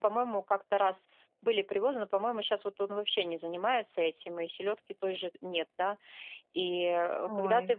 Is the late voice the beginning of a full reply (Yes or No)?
No